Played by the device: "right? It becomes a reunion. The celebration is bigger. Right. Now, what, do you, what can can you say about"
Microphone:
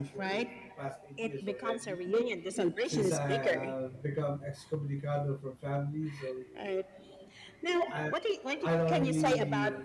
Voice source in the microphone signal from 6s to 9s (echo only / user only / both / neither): both